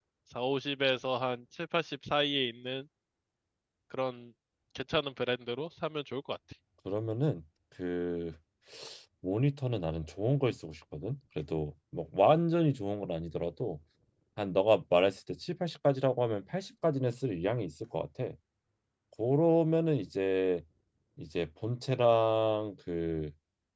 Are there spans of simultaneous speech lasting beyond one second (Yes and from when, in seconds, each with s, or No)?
No